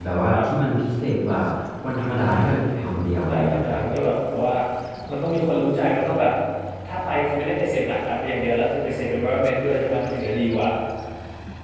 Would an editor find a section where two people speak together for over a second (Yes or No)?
Yes